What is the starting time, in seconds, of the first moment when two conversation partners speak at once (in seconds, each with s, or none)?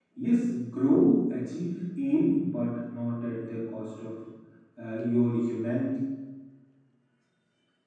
none